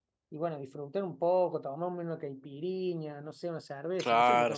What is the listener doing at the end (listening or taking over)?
taking over